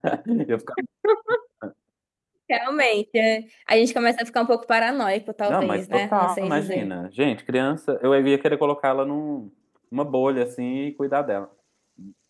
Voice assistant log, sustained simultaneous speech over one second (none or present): present